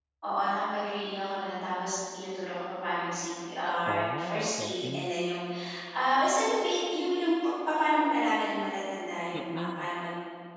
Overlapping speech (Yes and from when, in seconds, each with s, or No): Yes, from 3.9 s